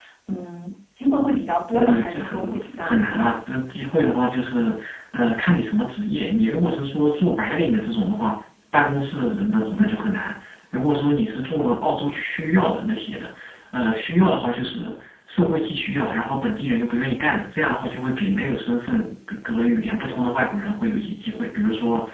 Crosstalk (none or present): present